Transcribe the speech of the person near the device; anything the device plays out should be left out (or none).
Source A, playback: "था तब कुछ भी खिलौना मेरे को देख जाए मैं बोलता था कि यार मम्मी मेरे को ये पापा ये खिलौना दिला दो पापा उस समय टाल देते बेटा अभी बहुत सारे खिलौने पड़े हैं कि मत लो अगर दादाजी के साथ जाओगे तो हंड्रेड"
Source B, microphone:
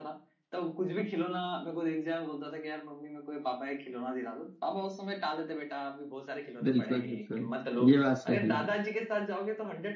बिल्कुल बिल्कुल ये बात सही है